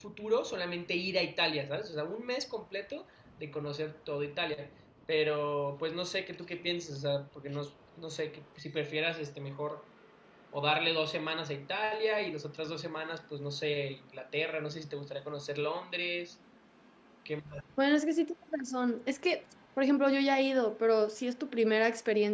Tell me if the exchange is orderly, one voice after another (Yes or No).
Yes